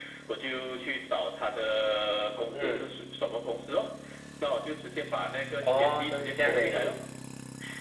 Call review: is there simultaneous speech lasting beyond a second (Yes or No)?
Yes